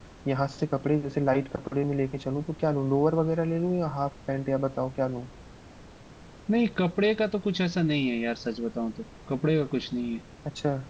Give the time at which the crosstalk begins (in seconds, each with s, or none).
none